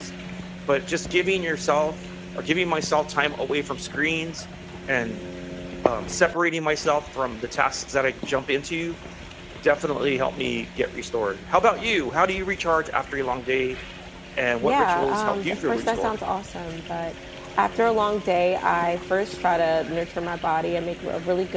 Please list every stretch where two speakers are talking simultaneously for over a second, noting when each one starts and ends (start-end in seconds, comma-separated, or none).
14.6-16.2